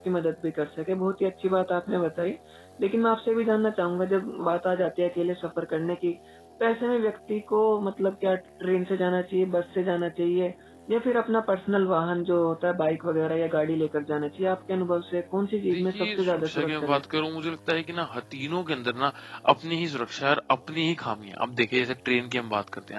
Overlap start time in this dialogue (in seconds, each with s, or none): 15.6 s